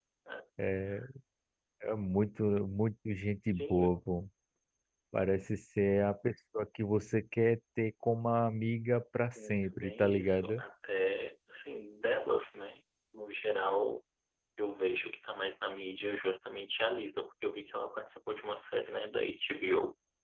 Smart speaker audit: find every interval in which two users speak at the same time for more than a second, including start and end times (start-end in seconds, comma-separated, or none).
9.3-10.6